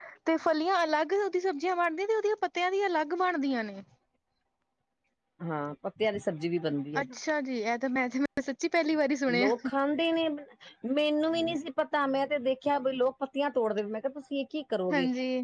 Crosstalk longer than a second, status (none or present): none